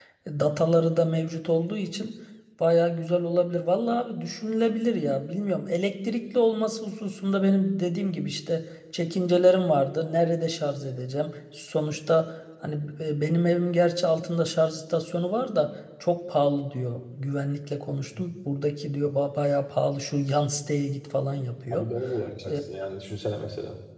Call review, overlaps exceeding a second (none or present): none